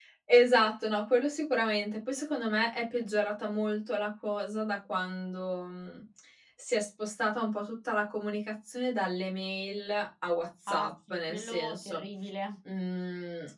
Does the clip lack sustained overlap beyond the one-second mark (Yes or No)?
No